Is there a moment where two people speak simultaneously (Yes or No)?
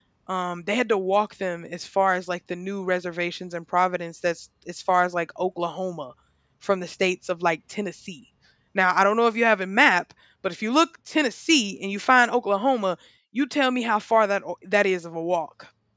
No